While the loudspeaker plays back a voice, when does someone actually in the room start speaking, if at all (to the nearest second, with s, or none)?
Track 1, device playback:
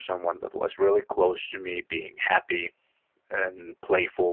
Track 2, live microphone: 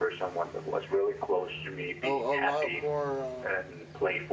2 s